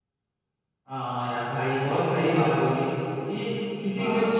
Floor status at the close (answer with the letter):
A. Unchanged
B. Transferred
A